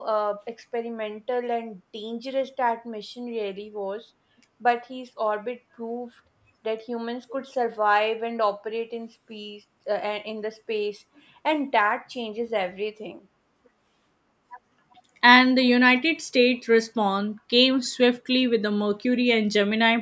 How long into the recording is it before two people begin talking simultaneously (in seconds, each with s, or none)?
none